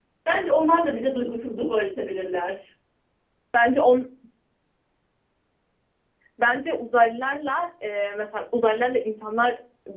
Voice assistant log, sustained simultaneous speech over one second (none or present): none